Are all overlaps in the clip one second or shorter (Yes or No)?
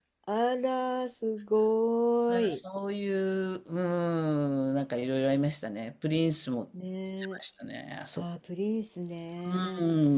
Yes